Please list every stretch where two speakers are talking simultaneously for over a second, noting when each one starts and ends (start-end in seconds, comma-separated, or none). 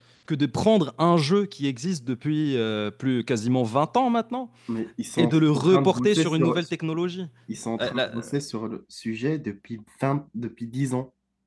5.2-6.6